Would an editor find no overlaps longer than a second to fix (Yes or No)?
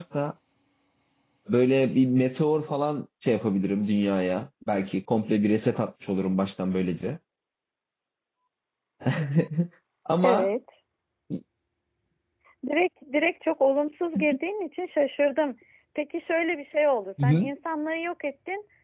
Yes